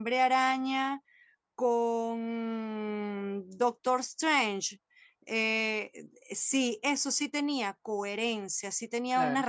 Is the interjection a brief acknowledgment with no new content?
Yes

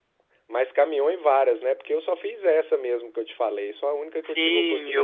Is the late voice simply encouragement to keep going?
No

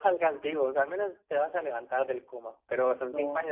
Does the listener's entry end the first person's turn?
No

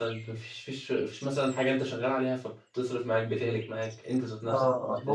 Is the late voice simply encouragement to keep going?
No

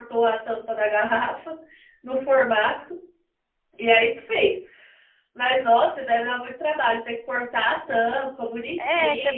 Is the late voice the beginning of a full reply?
Yes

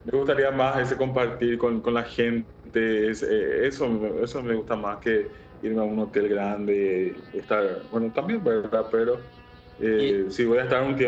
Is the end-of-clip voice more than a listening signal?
No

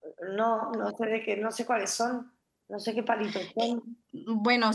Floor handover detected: Yes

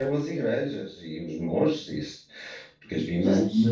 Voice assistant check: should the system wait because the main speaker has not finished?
Yes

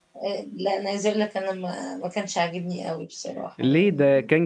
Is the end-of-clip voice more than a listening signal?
Yes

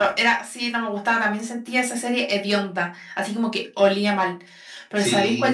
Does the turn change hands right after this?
No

